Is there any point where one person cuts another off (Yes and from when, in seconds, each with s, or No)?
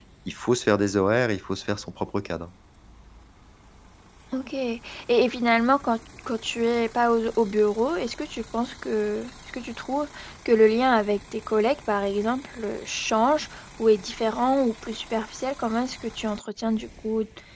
No